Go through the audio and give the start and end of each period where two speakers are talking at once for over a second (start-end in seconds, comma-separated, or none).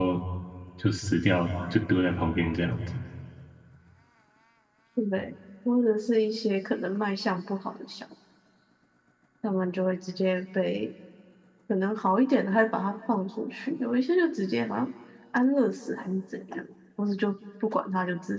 none